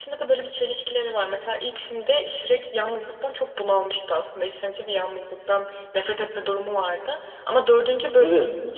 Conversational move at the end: listening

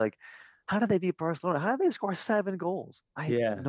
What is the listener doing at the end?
taking over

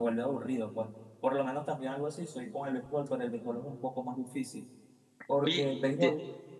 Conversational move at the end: taking over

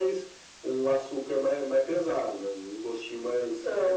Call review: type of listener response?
taking over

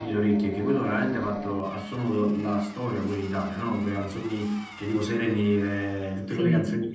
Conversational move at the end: listening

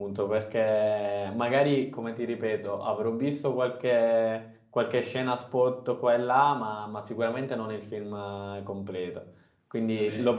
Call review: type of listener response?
listening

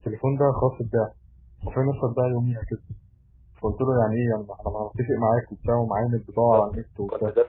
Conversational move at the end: taking over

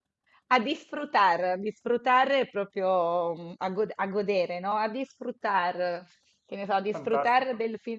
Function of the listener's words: listening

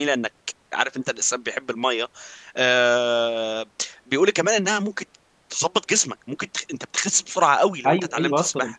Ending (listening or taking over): taking over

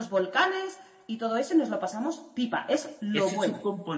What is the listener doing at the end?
taking over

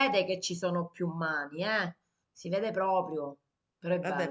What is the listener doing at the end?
taking over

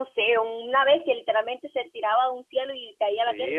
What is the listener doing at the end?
taking over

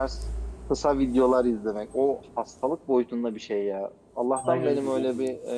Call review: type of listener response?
listening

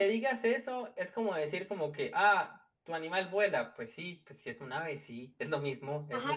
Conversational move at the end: taking over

